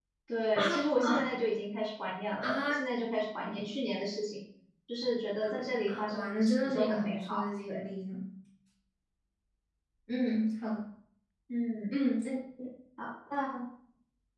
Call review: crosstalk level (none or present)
present